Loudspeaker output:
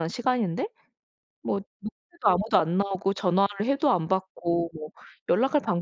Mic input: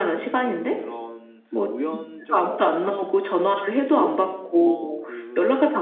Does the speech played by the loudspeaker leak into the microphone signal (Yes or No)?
Yes